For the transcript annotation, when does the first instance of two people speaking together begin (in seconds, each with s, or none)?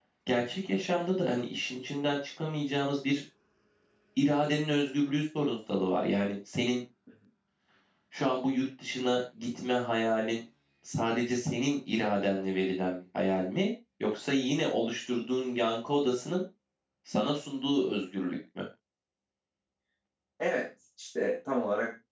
none